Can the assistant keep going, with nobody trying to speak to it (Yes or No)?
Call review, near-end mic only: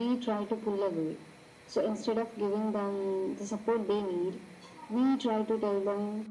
Yes